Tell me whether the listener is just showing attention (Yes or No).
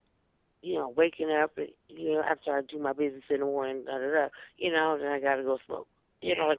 Yes